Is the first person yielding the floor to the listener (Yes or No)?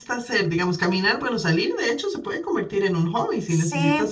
Yes